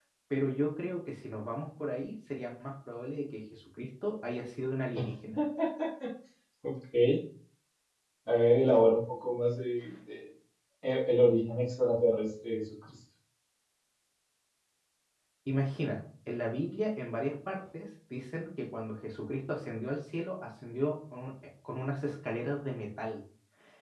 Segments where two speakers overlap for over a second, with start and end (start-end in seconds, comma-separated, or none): none